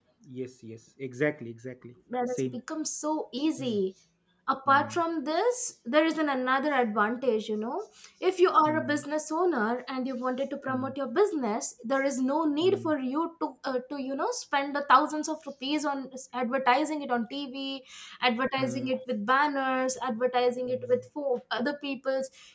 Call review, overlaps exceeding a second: none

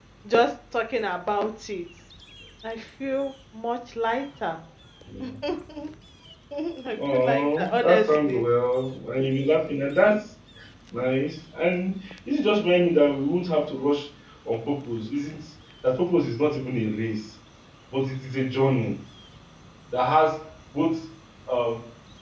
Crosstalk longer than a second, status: present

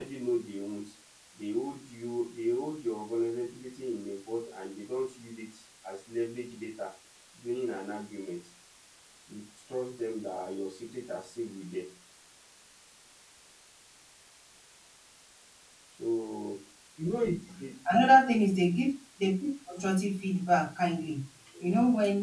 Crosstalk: none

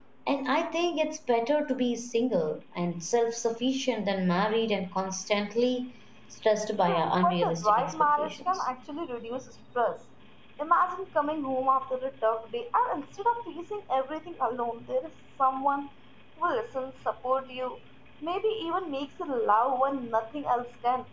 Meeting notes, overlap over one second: present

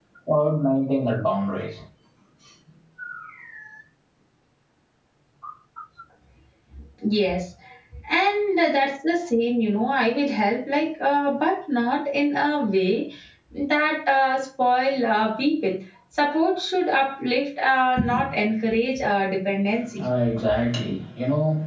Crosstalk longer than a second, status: none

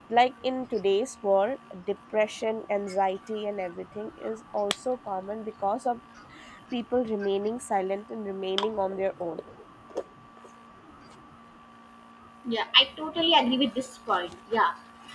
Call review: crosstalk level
none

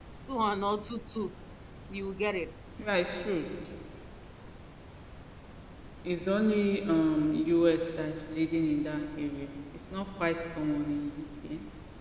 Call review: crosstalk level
none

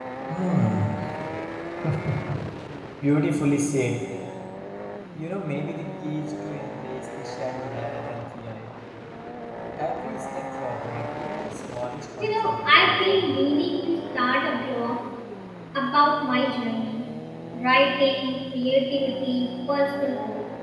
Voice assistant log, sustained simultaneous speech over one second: present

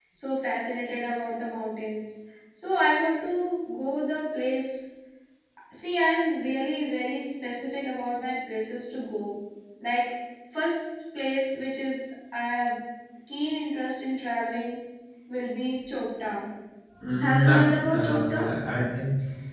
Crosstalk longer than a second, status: present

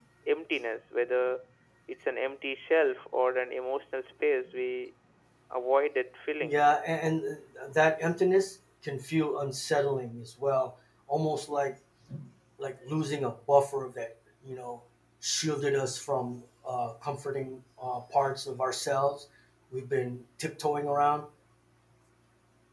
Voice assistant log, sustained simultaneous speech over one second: none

